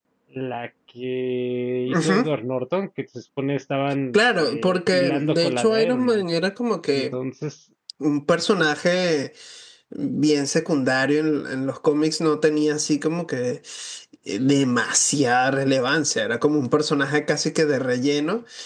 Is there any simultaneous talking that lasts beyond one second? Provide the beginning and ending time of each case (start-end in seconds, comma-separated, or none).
4.1-6.2